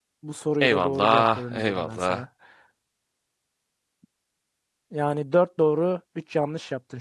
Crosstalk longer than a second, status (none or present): present